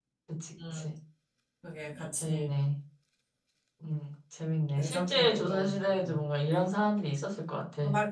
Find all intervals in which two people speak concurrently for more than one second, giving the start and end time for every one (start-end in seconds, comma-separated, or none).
4.8-6.2